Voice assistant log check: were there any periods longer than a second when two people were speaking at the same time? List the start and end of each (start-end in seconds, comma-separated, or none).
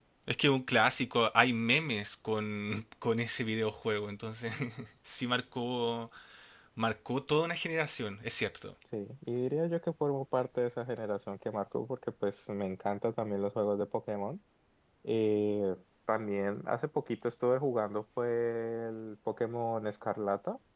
none